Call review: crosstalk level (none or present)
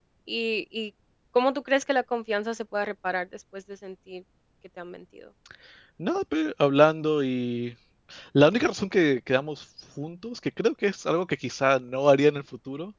none